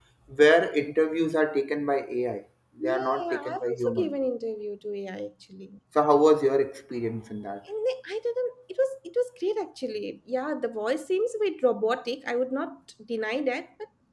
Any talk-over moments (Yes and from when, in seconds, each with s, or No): Yes, from 2.8 s